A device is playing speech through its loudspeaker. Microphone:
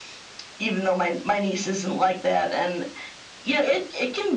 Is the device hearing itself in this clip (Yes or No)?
Yes